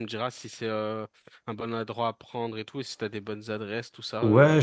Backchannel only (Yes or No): No